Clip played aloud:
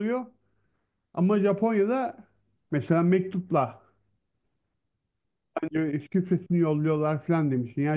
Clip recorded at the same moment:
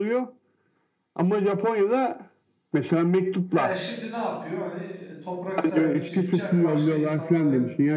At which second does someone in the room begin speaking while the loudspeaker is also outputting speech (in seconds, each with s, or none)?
3.5 s